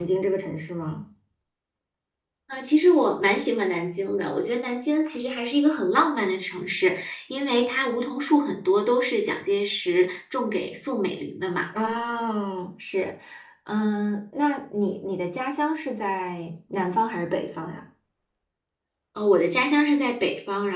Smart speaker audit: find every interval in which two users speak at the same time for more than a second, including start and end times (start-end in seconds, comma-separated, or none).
none